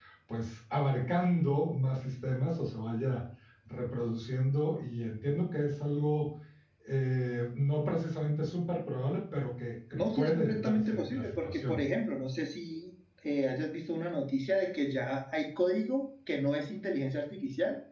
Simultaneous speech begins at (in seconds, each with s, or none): 9.9 s